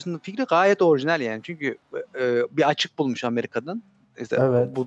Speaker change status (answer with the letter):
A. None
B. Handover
A